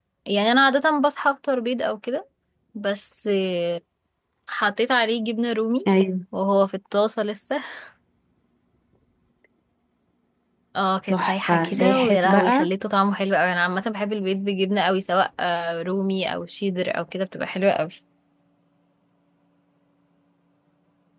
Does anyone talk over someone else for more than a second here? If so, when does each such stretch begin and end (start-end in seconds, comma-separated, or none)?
11.1-12.7